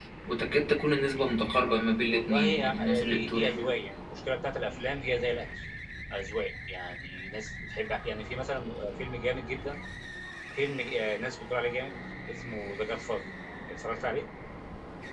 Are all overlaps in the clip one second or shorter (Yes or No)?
No